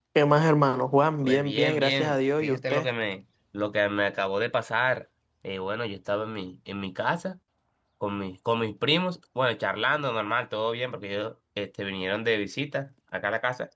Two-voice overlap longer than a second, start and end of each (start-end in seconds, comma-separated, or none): 1.2-2.9